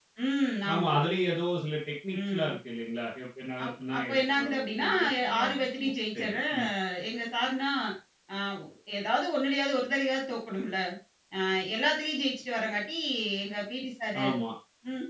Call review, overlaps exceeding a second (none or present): present